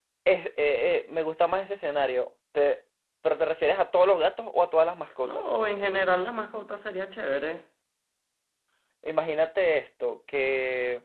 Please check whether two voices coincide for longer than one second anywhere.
No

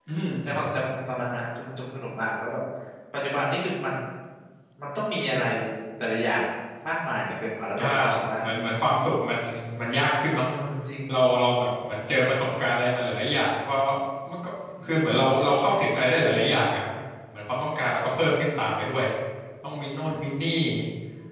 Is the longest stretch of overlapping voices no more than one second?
Yes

